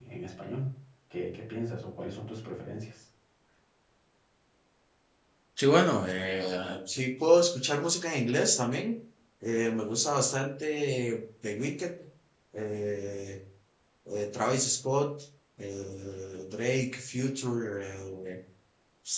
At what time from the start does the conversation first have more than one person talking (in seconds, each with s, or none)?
none